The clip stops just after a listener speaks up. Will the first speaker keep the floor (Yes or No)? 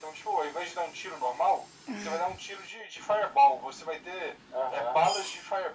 Yes